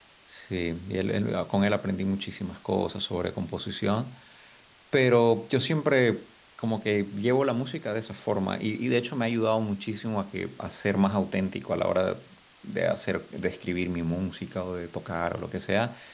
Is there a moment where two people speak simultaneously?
No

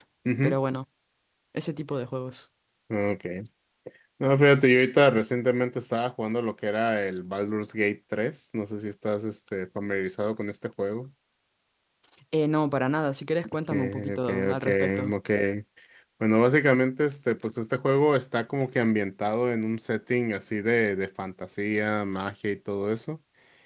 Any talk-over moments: Yes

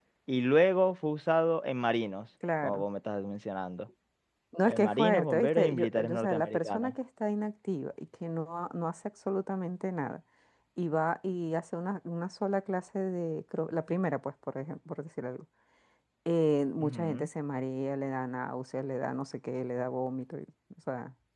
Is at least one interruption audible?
Yes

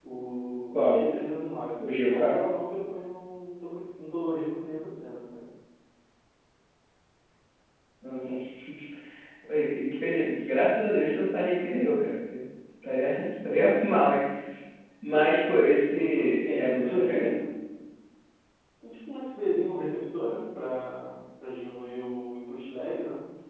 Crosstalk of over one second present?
Yes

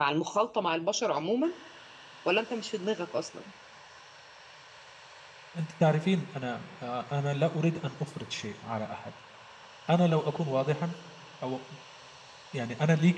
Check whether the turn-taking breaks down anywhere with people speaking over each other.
No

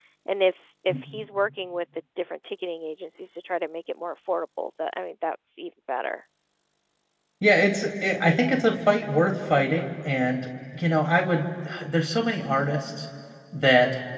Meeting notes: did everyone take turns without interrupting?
Yes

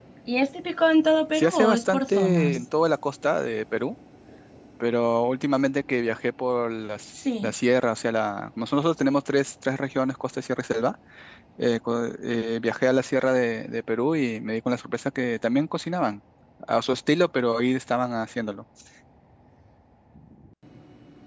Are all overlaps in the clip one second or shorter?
No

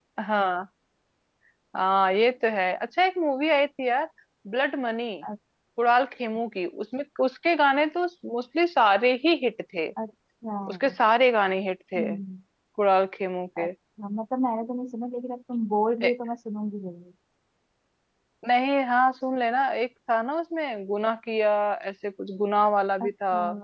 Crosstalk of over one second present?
No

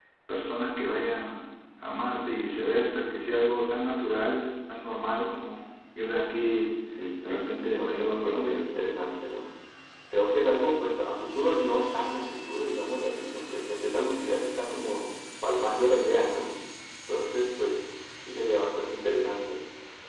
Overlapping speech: Yes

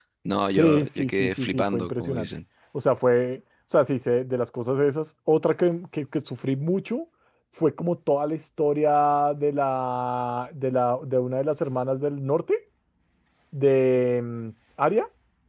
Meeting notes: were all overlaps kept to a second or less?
No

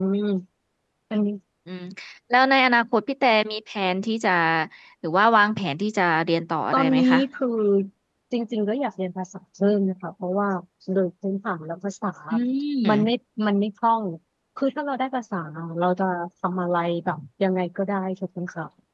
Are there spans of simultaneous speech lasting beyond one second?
No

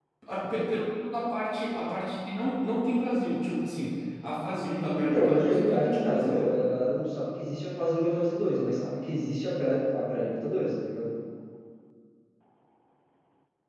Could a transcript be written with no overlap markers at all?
No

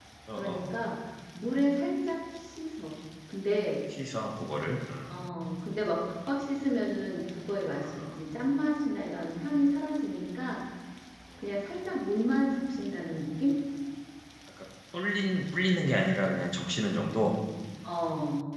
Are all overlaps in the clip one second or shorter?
Yes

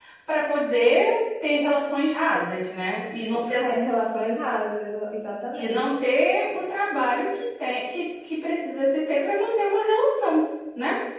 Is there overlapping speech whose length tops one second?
No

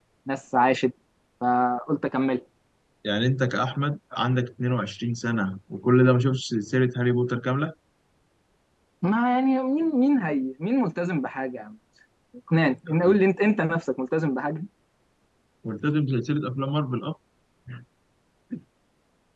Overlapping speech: No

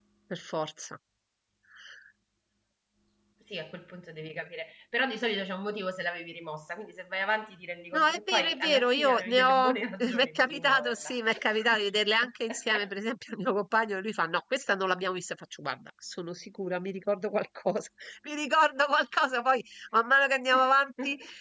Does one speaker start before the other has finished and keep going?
Yes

